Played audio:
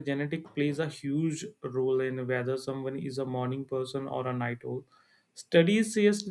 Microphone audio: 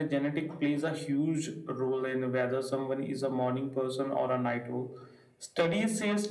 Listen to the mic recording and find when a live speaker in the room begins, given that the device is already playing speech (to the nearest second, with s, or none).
none